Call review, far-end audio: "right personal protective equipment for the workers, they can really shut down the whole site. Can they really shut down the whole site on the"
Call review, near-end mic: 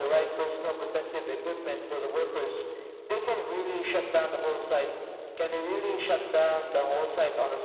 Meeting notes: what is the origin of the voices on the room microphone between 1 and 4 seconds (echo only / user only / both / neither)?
echo only